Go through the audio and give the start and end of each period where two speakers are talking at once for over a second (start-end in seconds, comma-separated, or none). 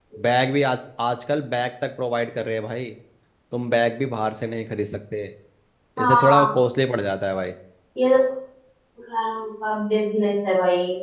none